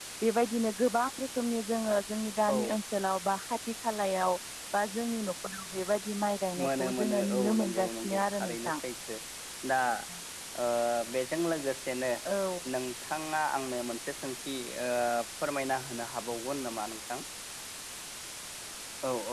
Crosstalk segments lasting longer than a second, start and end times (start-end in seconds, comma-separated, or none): 6.6-8.7